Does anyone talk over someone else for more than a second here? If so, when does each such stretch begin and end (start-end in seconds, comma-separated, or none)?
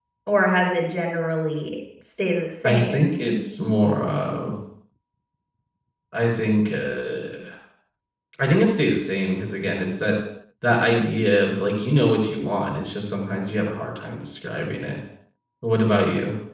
none